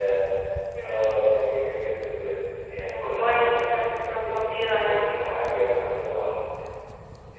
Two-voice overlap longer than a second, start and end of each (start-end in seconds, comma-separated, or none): 2.8-5.1